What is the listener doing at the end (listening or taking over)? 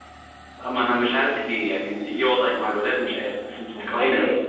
taking over